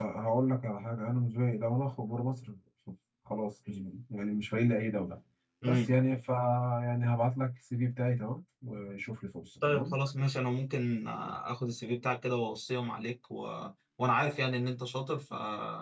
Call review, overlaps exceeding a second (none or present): none